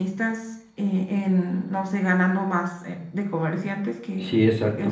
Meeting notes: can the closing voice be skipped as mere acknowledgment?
Yes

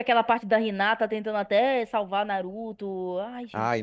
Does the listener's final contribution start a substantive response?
Yes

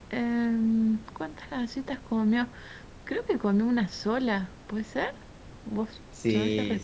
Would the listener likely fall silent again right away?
No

